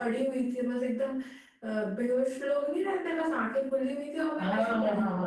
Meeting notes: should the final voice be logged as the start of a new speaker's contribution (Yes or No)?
Yes